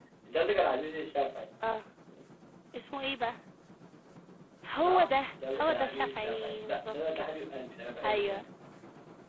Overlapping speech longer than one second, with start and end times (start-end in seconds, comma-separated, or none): 4.8-7.4